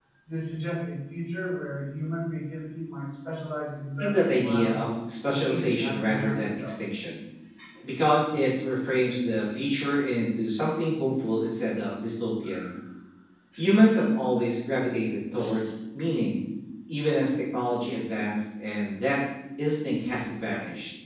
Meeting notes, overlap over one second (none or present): present